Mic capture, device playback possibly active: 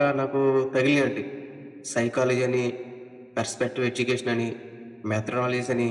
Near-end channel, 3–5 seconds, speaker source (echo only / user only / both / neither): echo only